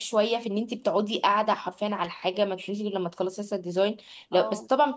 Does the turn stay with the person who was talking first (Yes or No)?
Yes